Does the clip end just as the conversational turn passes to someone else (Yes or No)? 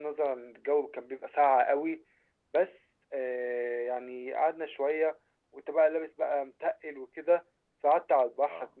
No